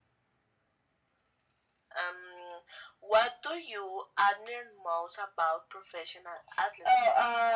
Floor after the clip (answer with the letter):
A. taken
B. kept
A